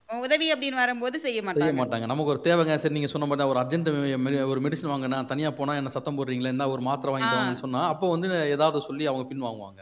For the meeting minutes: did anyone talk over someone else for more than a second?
No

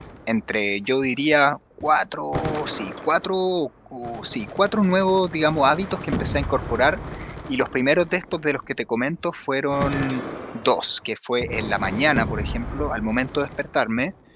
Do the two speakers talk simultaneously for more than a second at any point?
No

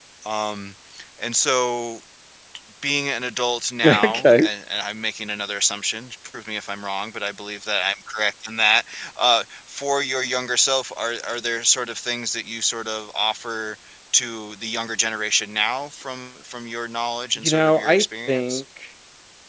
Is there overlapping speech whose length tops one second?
Yes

